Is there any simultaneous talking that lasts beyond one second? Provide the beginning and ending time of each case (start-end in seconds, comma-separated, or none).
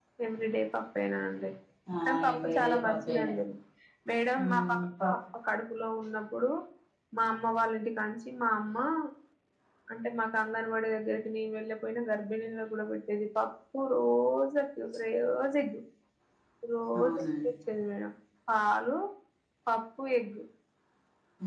2.0-3.3